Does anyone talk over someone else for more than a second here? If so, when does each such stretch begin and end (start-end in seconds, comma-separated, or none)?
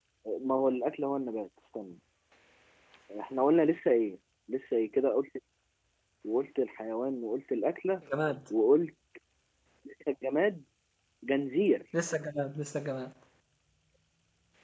none